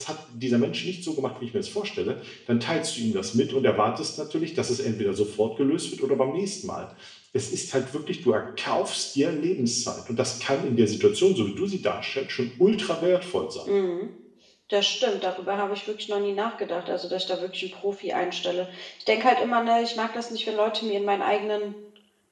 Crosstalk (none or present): none